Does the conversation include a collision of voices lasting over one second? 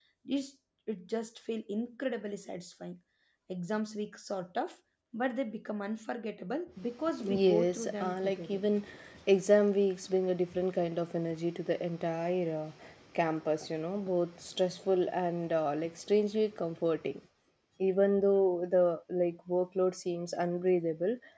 Yes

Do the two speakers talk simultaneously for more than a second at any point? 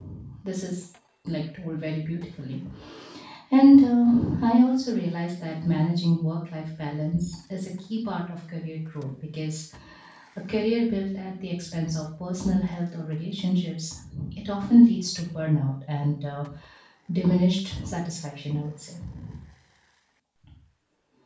No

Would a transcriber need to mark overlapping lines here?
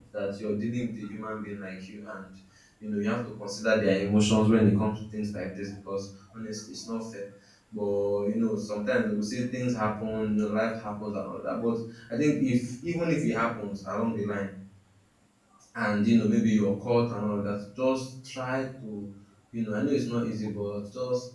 No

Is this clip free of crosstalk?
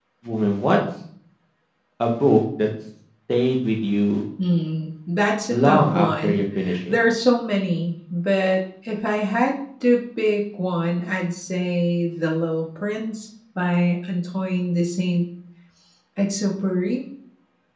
No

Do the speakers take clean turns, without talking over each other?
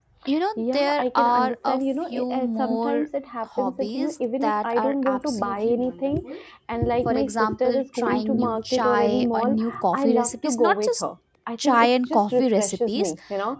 No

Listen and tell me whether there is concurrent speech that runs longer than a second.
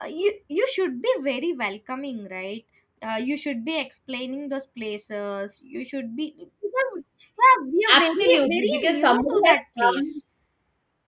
Yes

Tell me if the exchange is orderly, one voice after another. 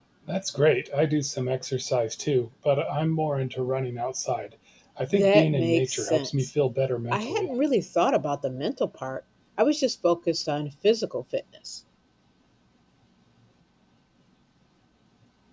No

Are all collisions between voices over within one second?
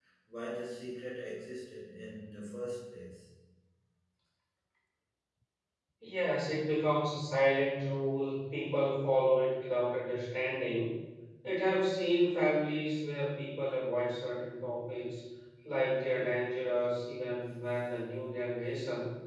Yes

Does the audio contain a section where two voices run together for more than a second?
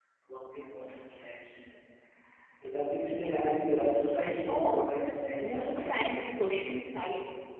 Yes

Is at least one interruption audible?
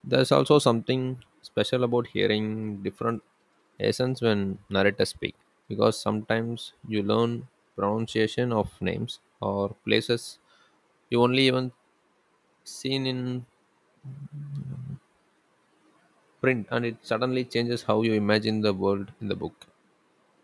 No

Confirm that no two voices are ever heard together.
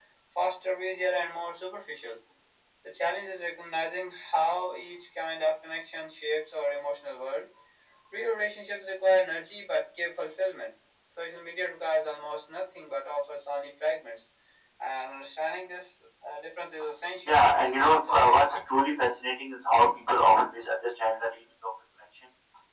No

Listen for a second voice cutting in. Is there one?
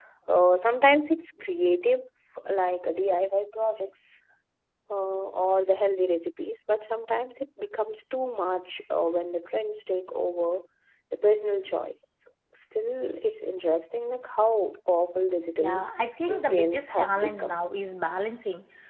Yes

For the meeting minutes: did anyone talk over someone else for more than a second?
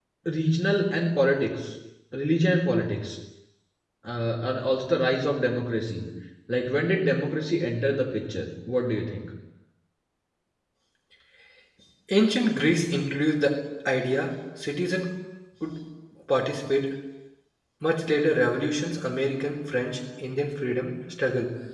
No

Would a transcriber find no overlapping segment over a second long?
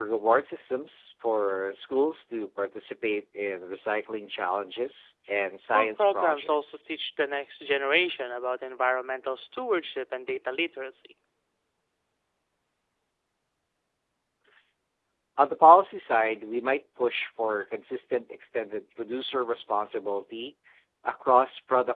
No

